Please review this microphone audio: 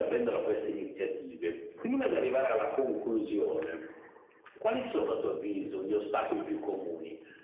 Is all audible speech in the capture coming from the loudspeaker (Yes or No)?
Yes